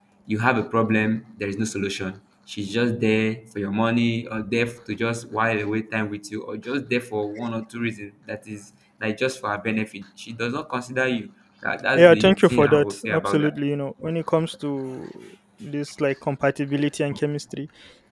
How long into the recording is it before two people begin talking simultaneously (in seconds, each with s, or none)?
11.9 s